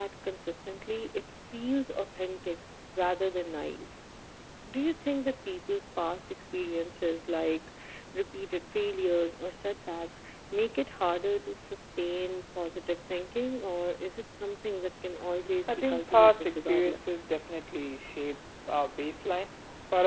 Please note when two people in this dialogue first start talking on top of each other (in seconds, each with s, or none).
15.7 s